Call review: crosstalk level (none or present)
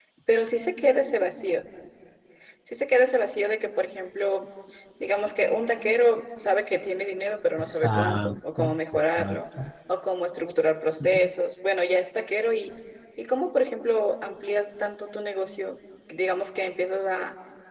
present